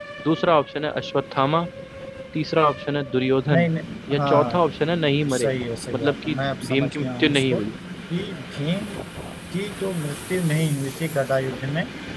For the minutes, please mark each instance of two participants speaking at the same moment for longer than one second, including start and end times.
5.9-7.6

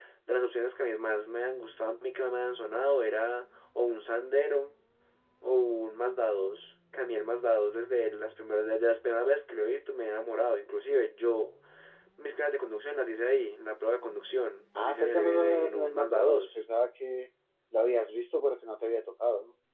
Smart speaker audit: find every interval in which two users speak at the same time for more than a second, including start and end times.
14.8-16.5

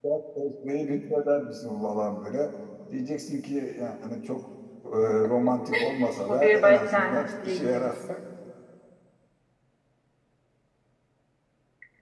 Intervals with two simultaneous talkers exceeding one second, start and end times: 6.3-7.9

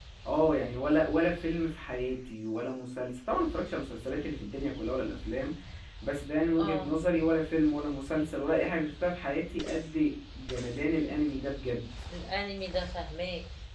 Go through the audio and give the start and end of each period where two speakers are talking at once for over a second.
none

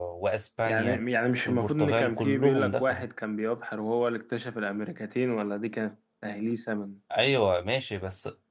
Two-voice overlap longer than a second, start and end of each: 1.4-3.0

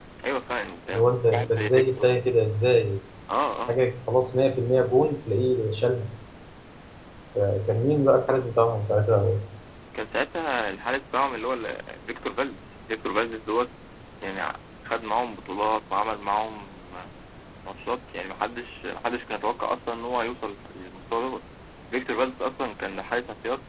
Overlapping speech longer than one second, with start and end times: 0.9-2.1

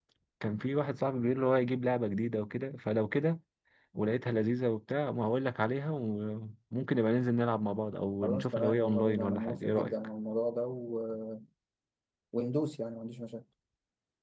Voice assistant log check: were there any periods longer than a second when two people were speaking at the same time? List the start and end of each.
8.2-9.9

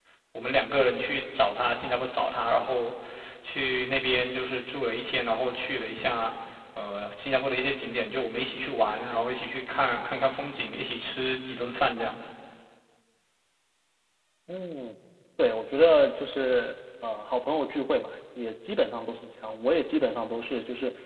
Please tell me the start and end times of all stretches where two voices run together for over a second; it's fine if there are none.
none

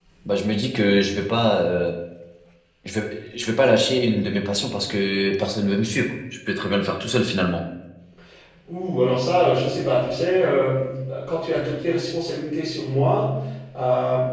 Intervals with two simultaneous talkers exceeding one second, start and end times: none

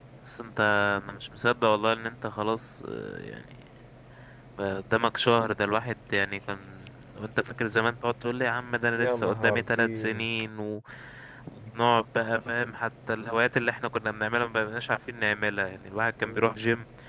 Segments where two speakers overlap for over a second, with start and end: 8.9-10.3

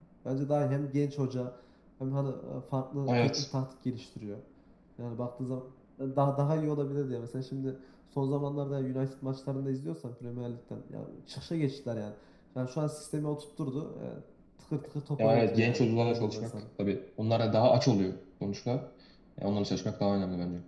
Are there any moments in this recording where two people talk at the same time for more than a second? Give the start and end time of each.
15.2-16.5

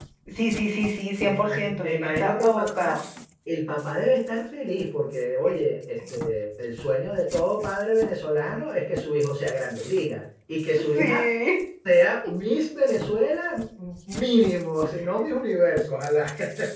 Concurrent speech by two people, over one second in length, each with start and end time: 1.2-3.0

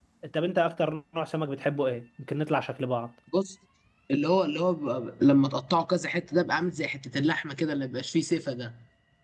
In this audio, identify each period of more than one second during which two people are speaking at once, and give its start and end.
none

